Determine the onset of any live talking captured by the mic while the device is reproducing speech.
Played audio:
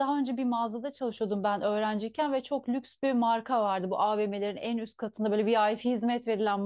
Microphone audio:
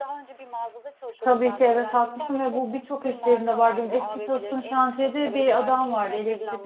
1.2 s

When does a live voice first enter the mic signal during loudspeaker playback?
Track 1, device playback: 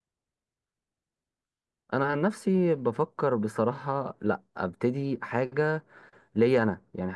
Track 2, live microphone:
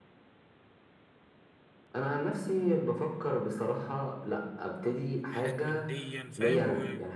5.3 s

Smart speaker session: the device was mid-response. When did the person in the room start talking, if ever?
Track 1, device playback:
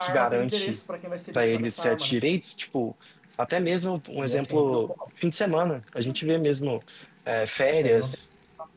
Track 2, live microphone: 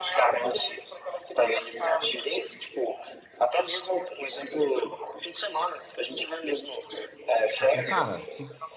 7.6 s

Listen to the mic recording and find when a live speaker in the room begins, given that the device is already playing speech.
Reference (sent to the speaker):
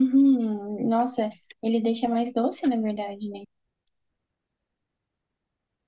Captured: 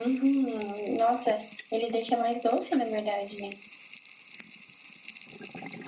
none

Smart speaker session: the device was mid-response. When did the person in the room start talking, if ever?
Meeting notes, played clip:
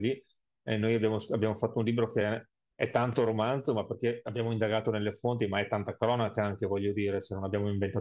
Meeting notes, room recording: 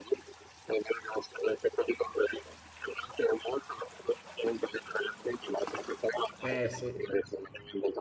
6.4 s

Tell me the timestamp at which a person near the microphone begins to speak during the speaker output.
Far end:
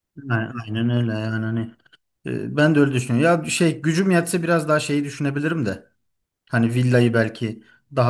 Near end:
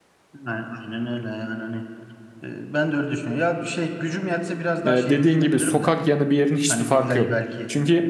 4.8 s

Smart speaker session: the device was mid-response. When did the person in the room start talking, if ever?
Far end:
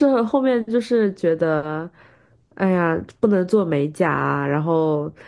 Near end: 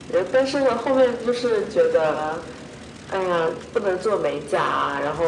none

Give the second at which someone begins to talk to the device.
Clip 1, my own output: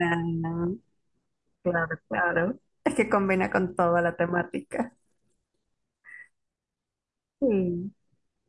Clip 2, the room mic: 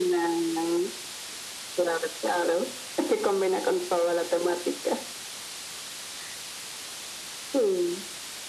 none

